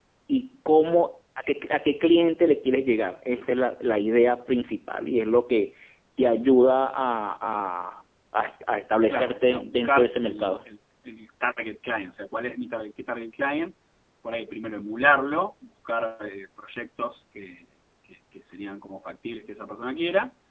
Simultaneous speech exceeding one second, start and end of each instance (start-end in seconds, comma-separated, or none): 9.1-10.6